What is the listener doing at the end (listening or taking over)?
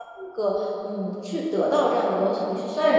taking over